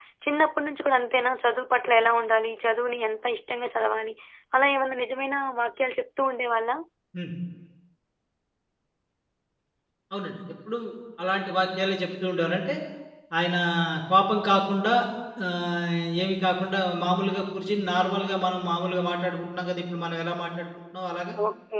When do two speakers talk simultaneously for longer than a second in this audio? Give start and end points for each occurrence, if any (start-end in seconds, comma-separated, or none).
none